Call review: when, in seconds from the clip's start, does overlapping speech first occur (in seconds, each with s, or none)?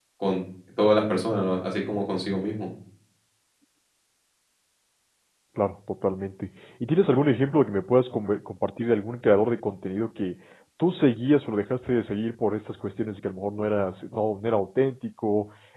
none